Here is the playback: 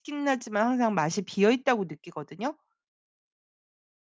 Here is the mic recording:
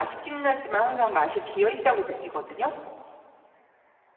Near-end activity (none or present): none